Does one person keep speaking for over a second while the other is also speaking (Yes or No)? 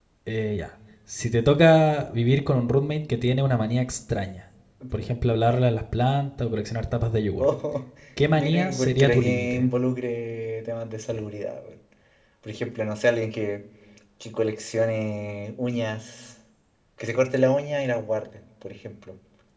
Yes